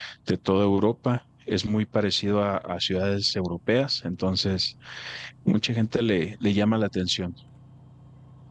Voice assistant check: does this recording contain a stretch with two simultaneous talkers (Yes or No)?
No